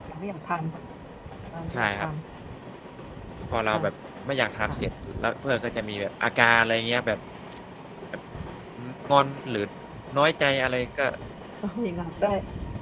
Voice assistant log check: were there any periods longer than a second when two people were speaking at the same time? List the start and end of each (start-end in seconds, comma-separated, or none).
none